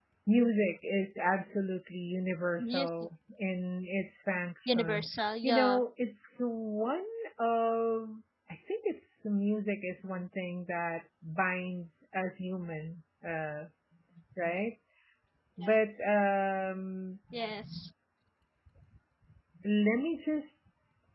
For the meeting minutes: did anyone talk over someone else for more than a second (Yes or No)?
No